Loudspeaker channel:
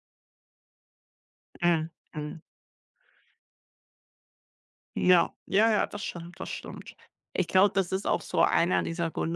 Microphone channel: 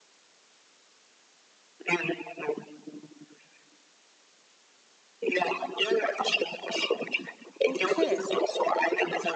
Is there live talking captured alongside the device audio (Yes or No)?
Yes